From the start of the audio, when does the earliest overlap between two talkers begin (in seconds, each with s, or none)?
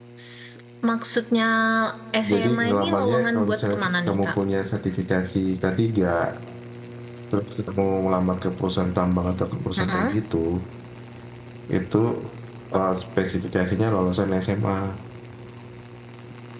2.3 s